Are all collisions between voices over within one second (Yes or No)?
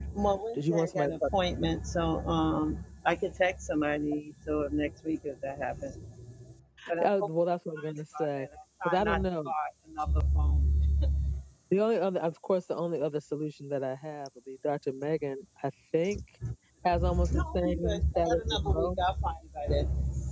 No